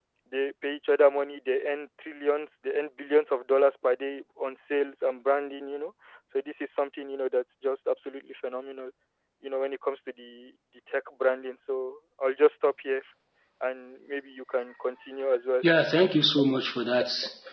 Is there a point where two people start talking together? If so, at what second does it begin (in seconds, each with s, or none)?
none